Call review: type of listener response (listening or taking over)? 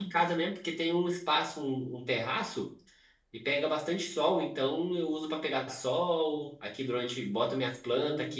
listening